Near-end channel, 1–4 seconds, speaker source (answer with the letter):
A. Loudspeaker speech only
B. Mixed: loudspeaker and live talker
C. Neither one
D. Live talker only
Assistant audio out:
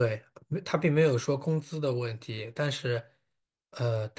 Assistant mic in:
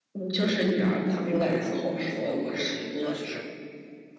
B